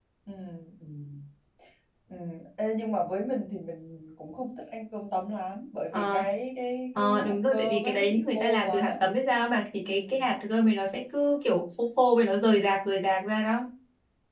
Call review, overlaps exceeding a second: present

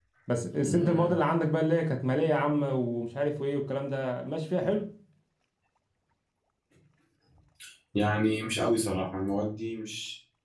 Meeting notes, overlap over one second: none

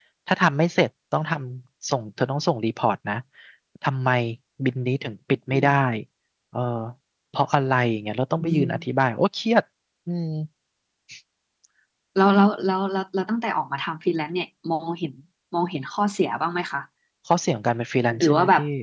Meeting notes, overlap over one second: none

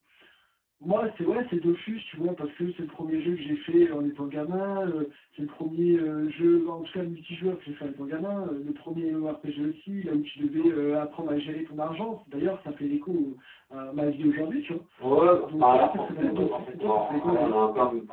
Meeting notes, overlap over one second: present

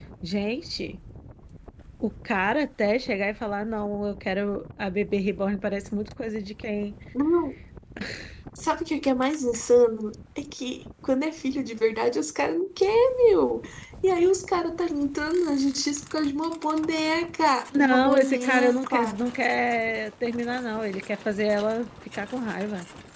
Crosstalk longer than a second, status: present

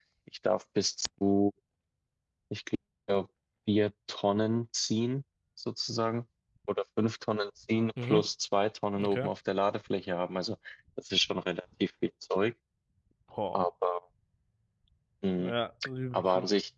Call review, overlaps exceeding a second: none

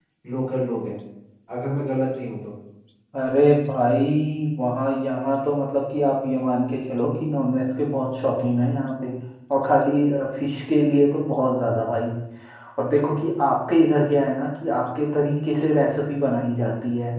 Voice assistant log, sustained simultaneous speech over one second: none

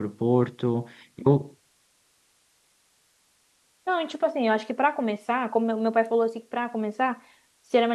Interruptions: none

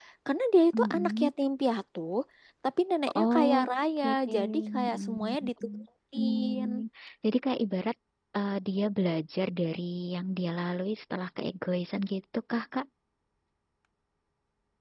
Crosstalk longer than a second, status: present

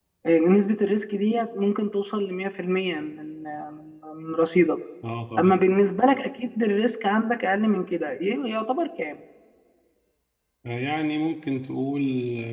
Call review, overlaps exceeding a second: none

